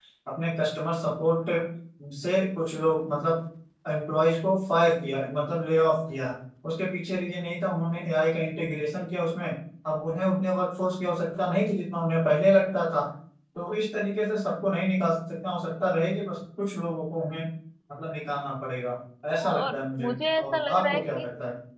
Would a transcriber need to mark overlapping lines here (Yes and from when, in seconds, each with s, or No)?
Yes, from 19.5 s